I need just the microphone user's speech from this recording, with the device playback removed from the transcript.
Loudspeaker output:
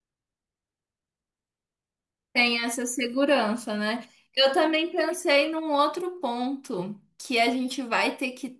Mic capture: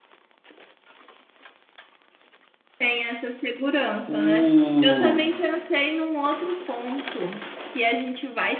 o, o

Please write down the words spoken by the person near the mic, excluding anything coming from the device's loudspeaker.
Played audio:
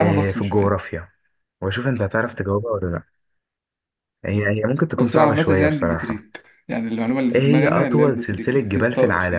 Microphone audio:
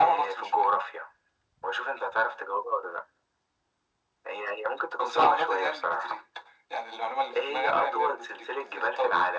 none

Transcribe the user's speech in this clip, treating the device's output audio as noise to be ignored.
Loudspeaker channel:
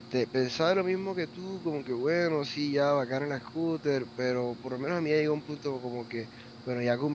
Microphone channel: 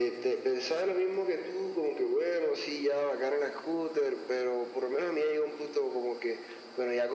none

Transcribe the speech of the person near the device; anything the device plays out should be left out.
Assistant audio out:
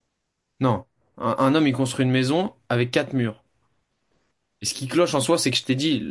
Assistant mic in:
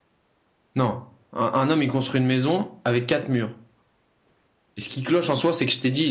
none

